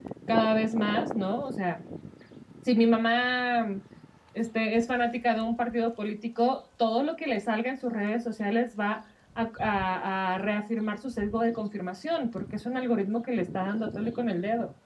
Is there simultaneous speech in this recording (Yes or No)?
No